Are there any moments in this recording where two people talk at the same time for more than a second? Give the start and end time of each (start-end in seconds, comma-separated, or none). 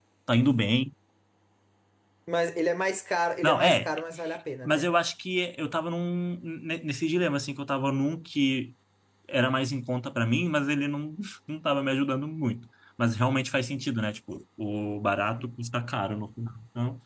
none